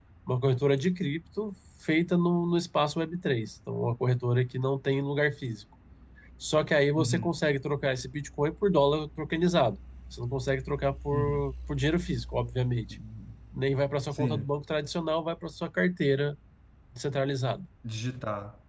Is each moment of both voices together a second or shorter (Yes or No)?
Yes